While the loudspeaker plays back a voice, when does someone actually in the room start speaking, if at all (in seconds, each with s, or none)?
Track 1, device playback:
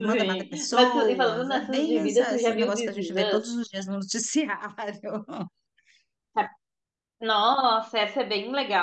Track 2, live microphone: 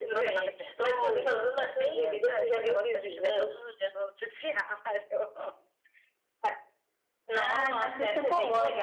7.3 s